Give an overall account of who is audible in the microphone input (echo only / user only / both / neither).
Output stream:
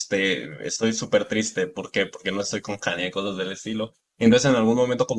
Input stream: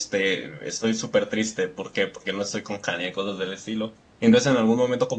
echo only